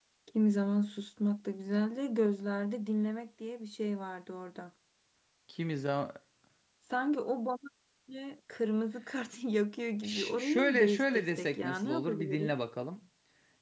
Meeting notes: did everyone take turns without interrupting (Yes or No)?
No